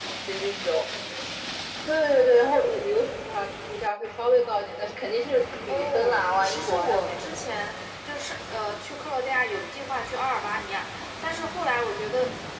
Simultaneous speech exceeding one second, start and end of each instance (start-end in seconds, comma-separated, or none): 5.7-7.4